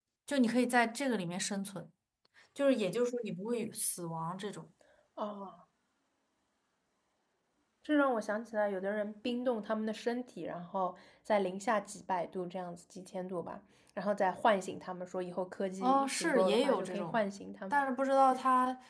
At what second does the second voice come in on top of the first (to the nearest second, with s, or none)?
16 s